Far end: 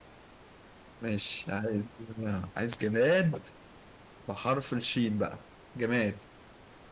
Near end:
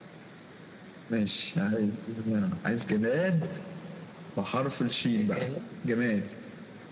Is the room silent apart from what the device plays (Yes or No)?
No